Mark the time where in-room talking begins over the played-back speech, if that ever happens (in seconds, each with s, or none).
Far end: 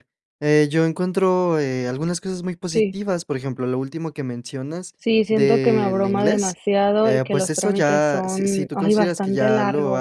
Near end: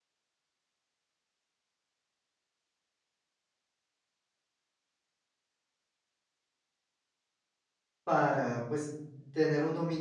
8.1 s